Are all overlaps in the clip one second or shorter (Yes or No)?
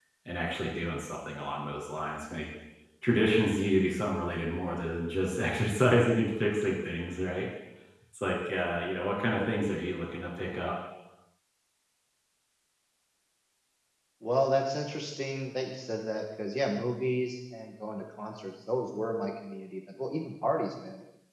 Yes